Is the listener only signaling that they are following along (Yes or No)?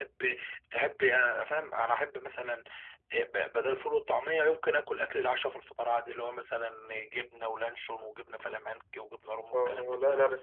No